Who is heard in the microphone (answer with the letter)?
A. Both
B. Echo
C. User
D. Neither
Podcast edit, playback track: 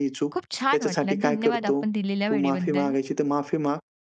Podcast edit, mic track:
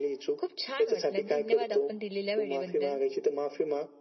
B